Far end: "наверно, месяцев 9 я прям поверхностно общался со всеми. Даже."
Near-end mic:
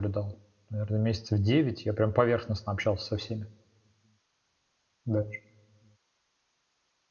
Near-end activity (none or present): none